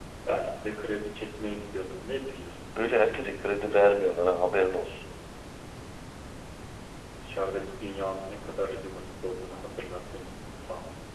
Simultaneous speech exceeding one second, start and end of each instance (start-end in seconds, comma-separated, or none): none